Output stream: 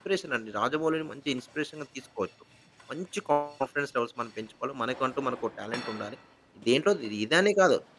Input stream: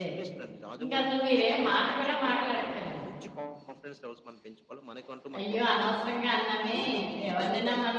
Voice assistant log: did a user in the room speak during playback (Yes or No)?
Yes